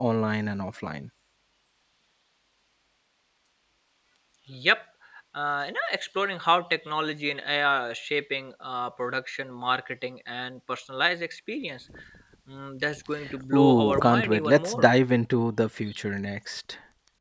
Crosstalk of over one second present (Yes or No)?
Yes